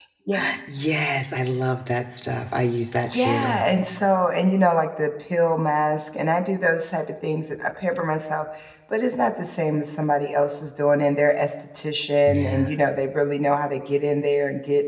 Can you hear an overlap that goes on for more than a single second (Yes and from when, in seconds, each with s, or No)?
No